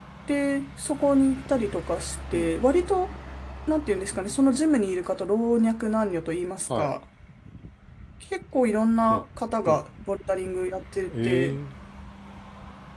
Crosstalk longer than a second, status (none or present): none